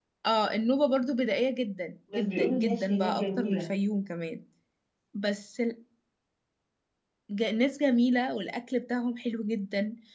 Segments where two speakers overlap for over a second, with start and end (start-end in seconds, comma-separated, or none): 2.1-3.7